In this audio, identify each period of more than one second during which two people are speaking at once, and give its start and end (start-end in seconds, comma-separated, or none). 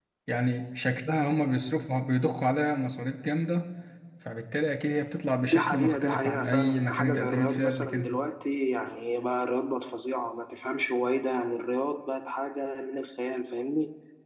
5.4-8.1